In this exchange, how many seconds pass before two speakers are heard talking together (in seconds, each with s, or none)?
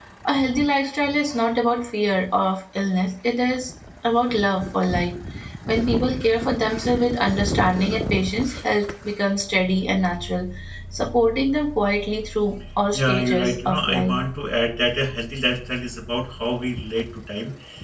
12.9 s